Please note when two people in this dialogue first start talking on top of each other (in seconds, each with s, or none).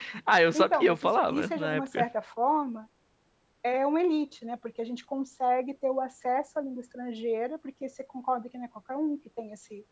0.5 s